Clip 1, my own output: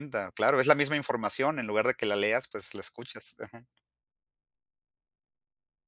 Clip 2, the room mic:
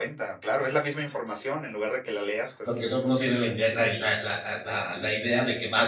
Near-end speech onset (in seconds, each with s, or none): 2.6 s